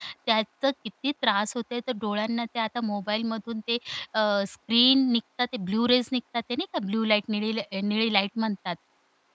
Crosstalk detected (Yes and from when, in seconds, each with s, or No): No